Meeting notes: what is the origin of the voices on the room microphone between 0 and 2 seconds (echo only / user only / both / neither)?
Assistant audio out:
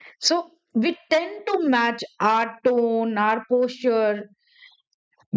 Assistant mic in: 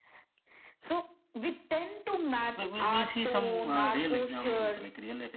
echo only